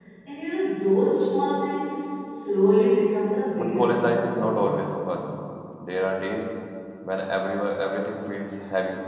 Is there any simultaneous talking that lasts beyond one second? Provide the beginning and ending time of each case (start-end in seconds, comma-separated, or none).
3.5-4.8